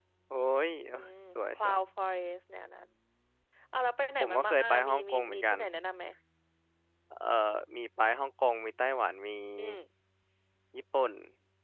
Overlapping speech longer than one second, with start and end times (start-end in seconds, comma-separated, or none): 4.2-5.6